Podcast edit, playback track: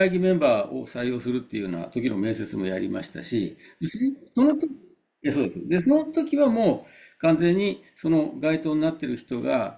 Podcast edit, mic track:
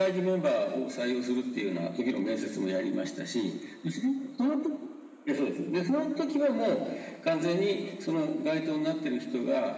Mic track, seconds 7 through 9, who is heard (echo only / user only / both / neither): echo only